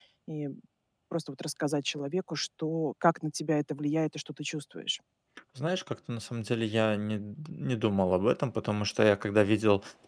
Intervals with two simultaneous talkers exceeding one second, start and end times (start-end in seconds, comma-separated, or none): none